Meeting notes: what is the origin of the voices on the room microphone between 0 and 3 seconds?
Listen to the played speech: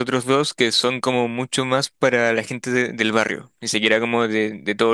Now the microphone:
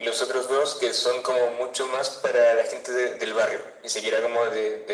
echo only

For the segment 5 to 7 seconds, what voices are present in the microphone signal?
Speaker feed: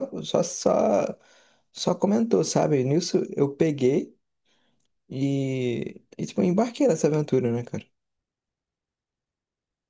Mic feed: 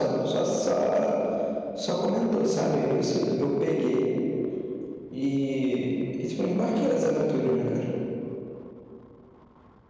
echo only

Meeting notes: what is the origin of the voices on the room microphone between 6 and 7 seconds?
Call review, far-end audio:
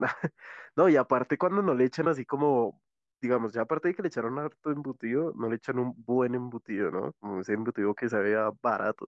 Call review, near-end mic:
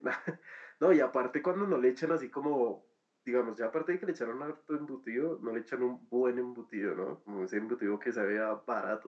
echo only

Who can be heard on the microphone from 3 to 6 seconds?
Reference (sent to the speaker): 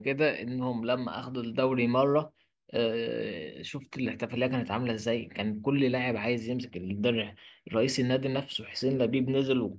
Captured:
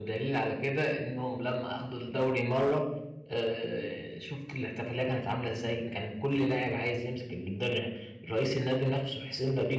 echo only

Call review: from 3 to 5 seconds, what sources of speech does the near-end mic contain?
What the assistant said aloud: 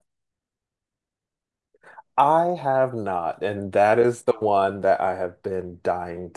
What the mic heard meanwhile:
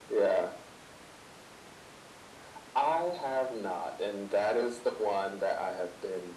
echo only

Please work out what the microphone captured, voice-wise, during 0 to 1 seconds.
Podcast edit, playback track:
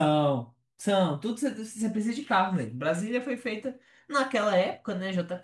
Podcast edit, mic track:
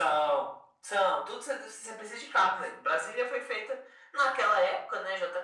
echo only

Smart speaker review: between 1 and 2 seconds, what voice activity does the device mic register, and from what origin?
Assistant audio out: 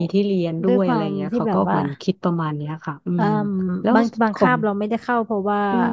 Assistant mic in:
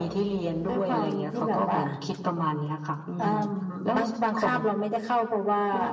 echo only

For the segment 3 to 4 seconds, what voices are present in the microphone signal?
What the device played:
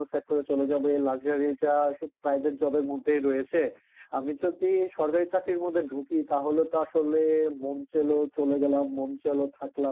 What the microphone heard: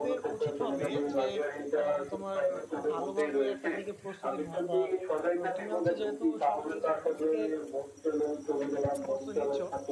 both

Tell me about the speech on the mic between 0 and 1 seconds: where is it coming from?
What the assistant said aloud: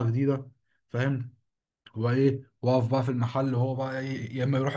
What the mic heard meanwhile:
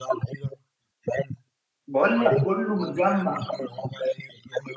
echo only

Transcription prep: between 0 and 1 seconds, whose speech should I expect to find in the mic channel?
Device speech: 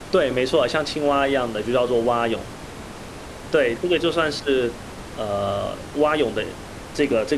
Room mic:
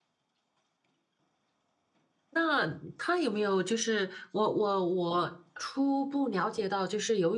neither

